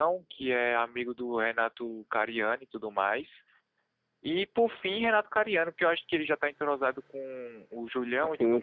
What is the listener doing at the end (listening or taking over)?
taking over